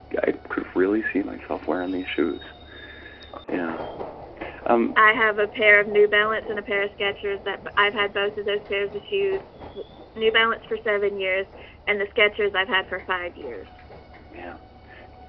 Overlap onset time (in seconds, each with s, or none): none